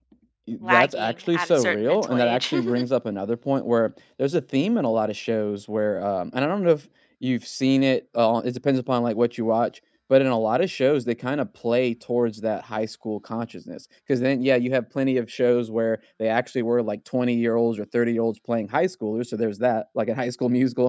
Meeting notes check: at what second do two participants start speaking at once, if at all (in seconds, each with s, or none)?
0.6 s